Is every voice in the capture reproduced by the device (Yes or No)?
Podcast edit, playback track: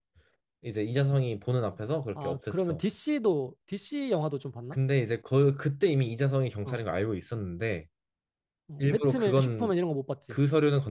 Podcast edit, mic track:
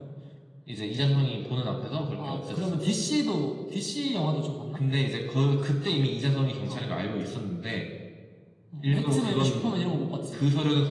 Yes